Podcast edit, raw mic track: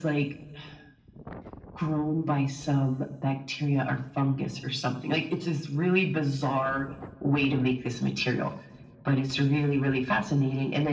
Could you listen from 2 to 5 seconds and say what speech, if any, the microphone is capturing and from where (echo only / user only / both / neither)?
echo only